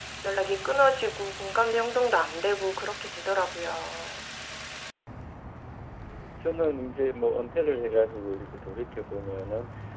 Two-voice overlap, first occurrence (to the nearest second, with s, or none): none